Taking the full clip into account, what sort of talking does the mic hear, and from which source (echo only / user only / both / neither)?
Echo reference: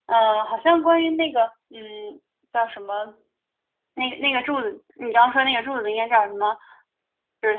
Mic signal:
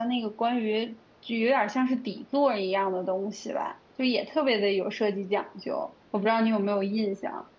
user only